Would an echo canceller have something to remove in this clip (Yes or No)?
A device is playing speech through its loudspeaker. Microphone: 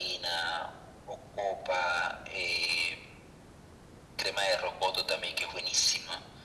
Yes